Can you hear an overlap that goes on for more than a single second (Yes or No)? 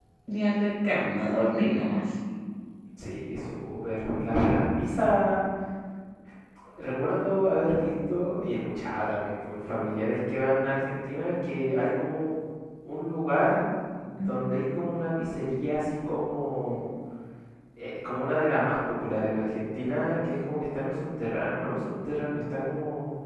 No